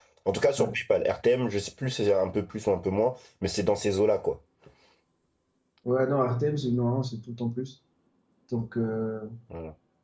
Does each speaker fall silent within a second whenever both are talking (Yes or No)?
Yes